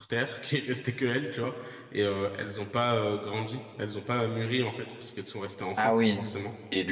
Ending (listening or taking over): taking over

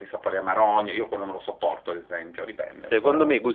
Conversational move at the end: taking over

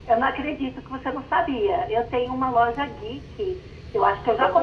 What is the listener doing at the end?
listening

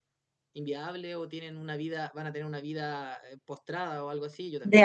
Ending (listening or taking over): taking over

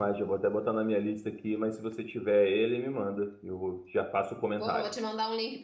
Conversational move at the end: taking over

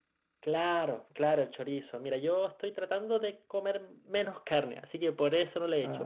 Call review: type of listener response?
listening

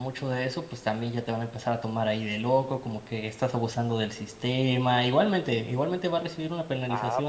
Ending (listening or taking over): taking over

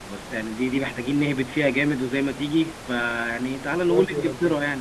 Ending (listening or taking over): listening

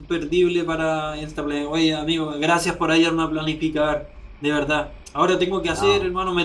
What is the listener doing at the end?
listening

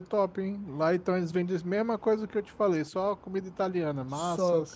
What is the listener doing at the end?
taking over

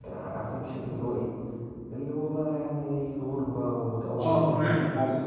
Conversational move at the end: taking over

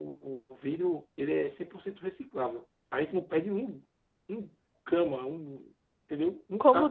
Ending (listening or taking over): taking over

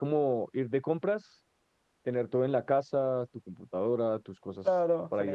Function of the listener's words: taking over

